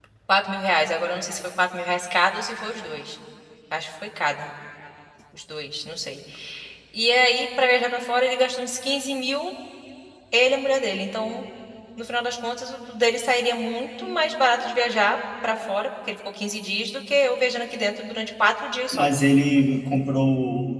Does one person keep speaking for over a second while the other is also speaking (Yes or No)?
No